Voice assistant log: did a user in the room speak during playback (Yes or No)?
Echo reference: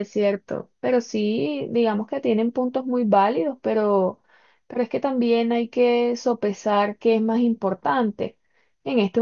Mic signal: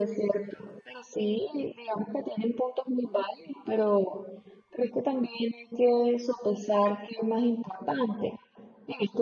No